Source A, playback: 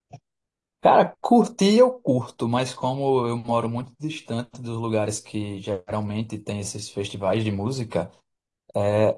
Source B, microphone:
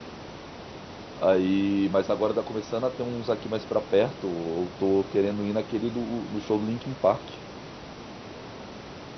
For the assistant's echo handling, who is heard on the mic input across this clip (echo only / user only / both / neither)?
user only